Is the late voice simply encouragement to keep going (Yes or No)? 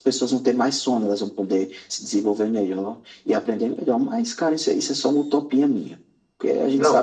No